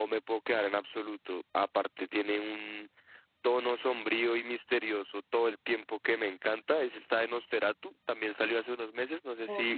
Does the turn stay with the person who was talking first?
No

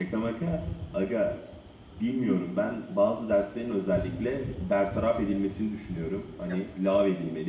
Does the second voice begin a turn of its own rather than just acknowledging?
No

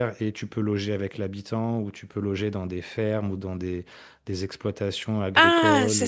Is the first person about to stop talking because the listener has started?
Yes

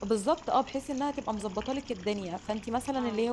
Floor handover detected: No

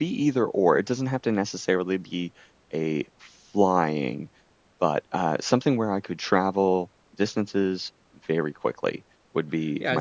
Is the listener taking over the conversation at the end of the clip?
Yes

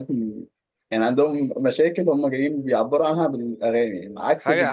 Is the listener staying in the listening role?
No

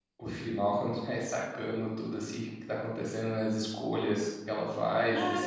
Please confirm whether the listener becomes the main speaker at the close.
Yes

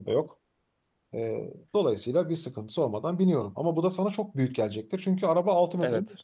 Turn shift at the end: Yes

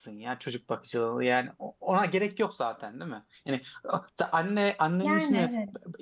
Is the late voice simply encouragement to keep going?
Yes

